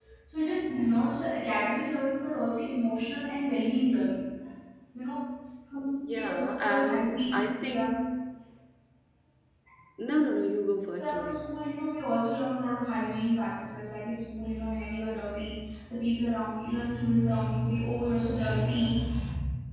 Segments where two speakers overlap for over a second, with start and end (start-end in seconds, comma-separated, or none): 6.1-7.9